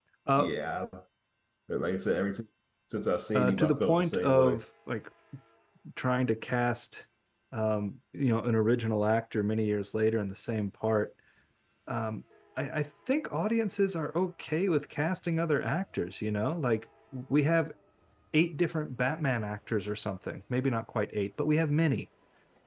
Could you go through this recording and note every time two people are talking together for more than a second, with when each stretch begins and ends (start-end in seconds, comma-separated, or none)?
3.3-4.6